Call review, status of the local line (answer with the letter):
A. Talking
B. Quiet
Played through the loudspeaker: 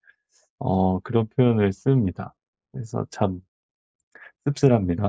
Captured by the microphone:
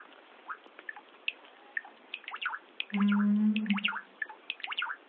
A